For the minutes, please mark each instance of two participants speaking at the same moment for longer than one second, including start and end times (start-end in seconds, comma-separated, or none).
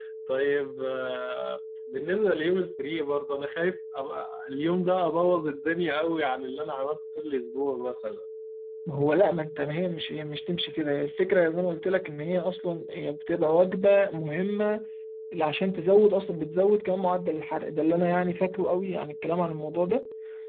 none